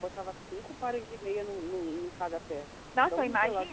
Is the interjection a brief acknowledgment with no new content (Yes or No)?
No